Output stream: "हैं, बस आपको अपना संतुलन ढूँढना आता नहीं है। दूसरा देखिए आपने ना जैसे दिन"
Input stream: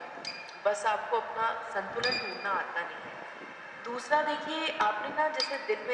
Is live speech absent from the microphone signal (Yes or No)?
Yes